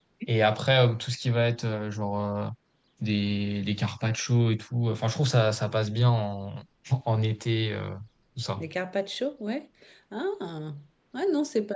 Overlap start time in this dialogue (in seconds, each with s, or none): none